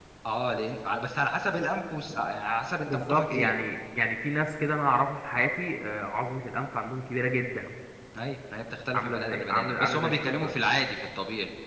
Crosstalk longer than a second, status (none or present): present